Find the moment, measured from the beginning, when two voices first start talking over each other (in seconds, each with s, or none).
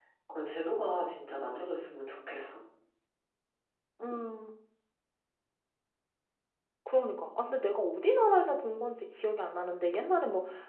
none